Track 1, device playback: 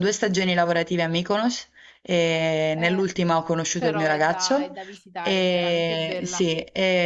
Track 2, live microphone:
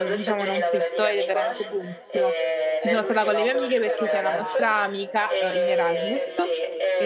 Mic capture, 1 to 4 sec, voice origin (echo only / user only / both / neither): both